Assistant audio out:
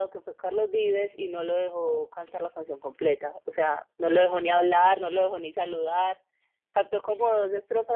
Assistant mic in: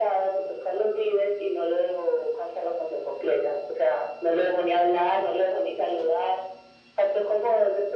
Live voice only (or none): none